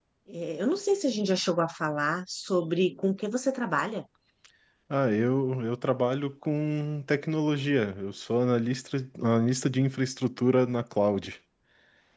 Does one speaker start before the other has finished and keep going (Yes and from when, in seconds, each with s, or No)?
No